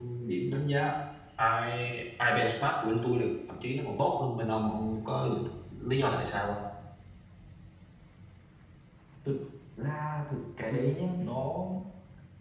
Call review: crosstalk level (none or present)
none